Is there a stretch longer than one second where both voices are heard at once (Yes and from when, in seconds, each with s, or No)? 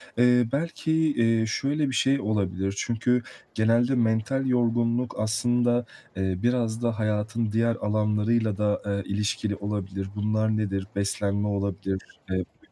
No